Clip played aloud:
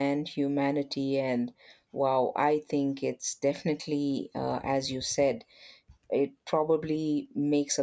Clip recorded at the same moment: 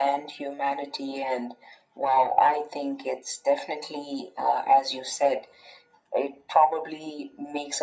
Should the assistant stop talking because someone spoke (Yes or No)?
No